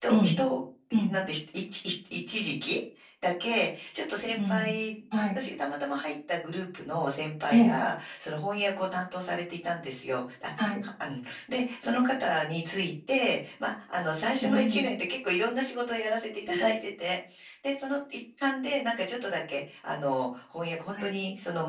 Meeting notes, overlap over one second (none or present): none